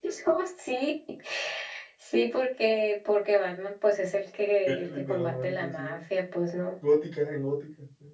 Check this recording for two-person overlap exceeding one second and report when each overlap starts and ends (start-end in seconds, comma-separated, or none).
4.7-6.0